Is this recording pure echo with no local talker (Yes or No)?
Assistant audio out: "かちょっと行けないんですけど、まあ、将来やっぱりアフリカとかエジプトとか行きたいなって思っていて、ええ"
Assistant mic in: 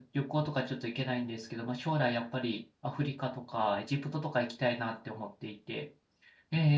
Yes